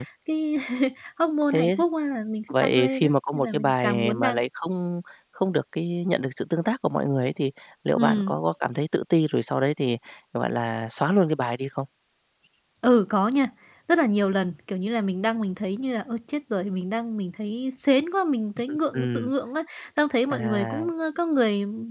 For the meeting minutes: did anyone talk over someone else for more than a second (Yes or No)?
Yes